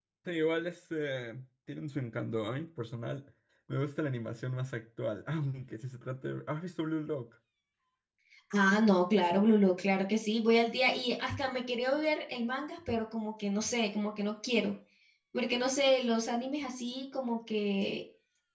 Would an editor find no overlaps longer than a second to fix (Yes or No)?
Yes